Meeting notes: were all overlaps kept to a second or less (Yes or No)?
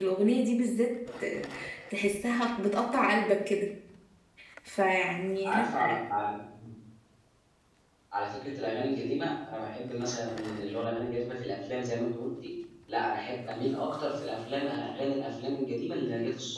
Yes